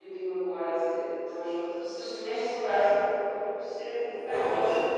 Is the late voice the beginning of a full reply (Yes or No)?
Yes